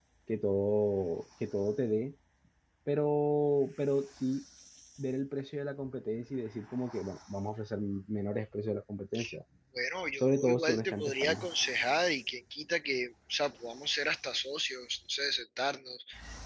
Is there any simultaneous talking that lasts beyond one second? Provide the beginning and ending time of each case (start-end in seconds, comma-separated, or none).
10.2-11.5